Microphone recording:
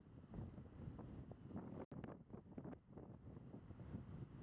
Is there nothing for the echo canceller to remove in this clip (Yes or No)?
Yes